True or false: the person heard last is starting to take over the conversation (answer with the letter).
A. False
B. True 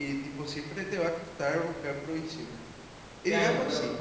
B